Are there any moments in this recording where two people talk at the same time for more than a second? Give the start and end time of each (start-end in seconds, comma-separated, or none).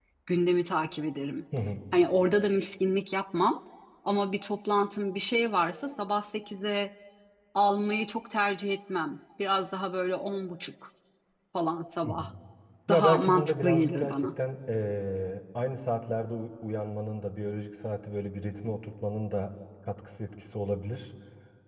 12.9-14.3